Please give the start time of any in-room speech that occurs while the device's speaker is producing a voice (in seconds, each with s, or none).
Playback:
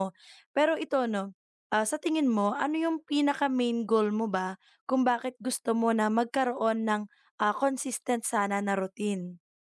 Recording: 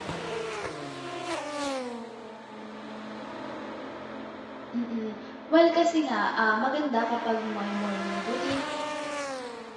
4.7 s